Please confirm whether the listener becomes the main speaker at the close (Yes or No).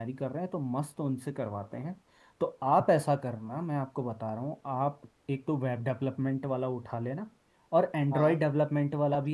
No